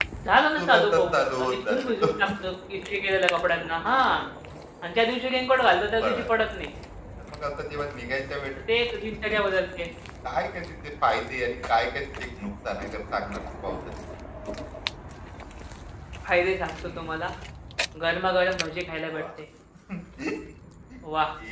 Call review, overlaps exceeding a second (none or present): present